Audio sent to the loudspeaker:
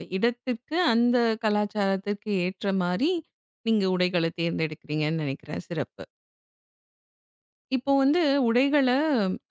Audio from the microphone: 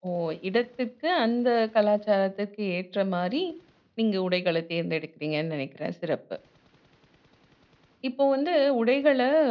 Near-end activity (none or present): none